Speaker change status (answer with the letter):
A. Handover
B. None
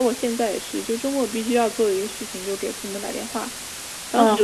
B